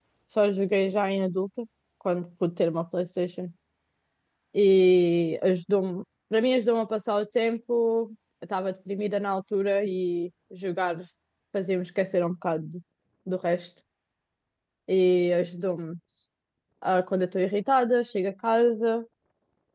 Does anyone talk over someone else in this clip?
No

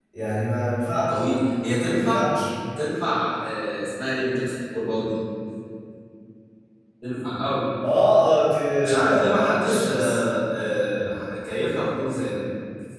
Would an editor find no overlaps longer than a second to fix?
No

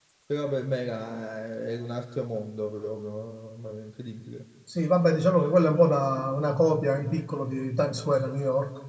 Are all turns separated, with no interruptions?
Yes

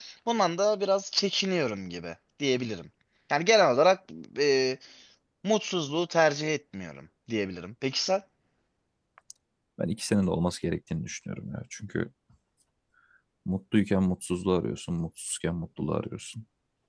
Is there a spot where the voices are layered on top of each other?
No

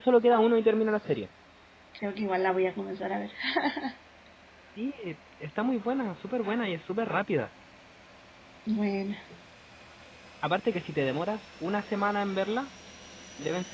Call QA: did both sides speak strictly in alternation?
Yes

